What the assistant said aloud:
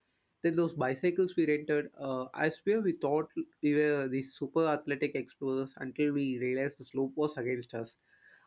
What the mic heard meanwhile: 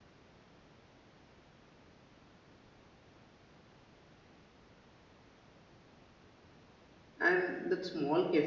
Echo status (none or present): none